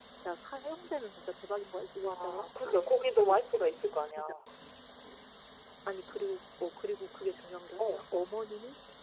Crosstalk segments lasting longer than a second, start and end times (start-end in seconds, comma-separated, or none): none